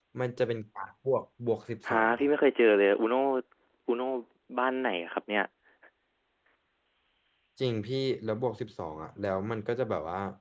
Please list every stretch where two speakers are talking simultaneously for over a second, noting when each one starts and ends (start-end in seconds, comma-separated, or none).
none